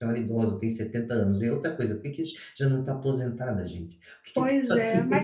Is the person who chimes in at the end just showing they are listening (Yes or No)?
No